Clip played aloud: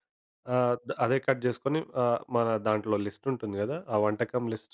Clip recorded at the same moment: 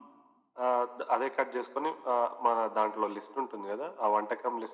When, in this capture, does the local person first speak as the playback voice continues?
none

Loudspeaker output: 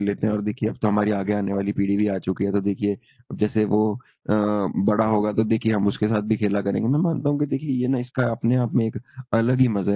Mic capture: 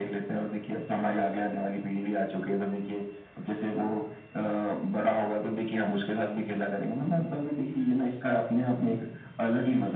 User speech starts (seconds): none

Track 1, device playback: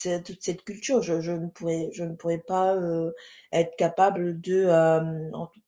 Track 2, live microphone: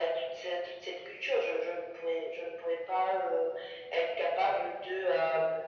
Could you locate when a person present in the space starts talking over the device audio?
none

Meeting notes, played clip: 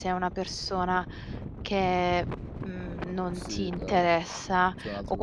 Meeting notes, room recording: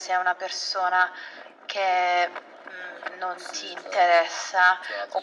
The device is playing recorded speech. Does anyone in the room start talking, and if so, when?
none

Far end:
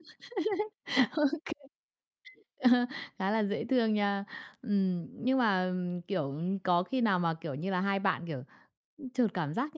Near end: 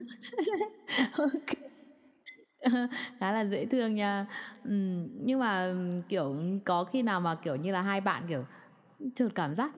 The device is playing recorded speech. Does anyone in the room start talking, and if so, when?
none

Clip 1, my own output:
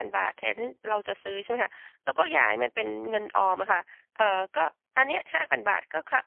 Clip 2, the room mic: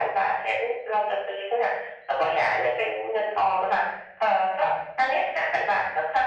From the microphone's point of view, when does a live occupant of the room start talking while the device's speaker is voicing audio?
none

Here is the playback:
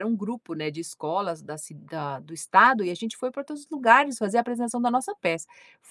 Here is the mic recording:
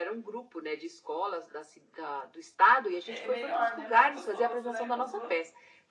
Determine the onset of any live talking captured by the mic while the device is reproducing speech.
3.0 s

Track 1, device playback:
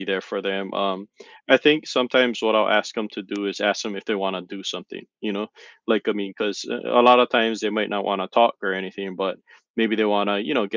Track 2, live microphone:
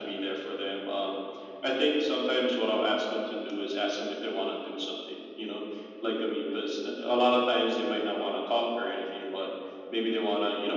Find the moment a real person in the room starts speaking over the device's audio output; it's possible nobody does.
none

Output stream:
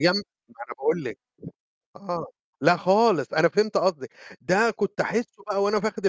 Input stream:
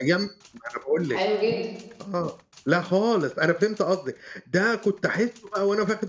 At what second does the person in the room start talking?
1.1 s

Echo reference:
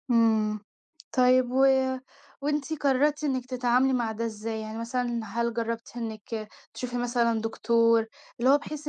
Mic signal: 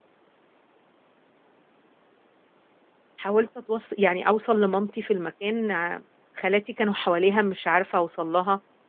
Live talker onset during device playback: 3.2 s

